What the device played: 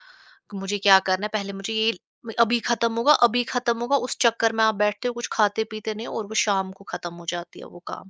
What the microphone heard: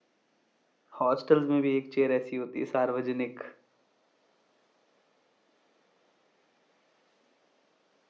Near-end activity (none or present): present